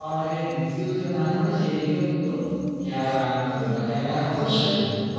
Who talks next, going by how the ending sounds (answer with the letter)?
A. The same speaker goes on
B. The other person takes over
B